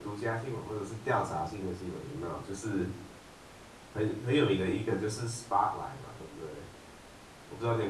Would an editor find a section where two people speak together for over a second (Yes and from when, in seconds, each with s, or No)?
No